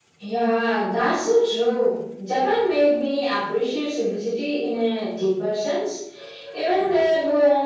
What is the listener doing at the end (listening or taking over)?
listening